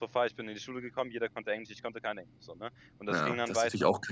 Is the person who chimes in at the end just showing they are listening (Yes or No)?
No